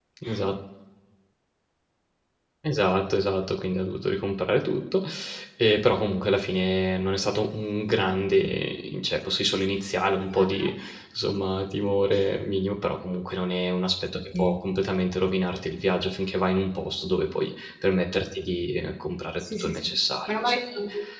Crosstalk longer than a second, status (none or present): none